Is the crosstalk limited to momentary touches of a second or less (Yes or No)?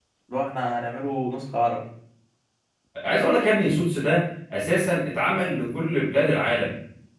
Yes